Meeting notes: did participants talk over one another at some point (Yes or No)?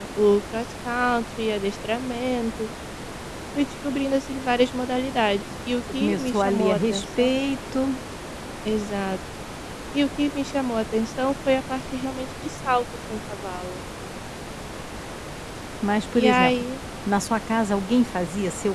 Yes